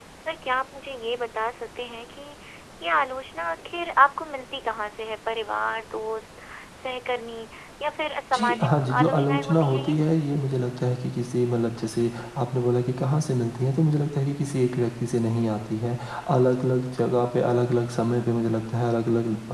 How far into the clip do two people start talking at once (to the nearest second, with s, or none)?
8 s